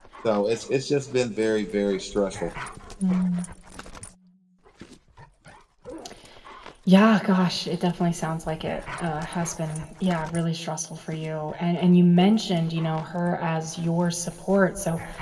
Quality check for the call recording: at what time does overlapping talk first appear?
none

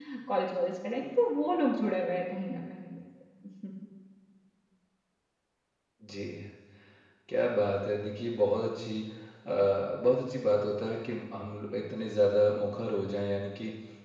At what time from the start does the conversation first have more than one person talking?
none

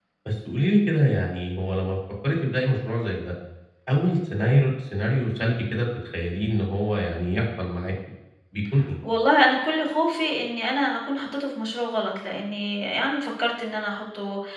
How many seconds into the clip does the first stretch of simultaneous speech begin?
none

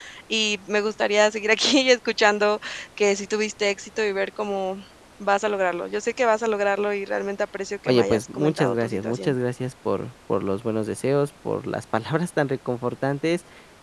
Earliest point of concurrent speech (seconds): 7.9 s

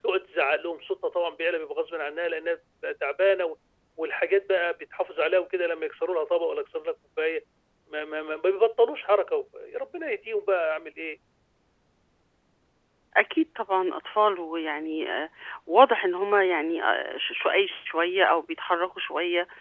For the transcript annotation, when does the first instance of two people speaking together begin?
none

